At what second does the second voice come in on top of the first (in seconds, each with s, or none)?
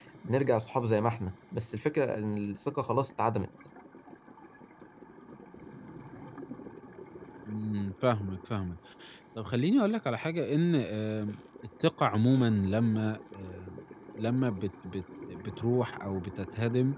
none